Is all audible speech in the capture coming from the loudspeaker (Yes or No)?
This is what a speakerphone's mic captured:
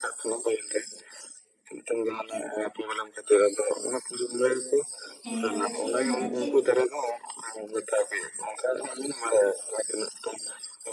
No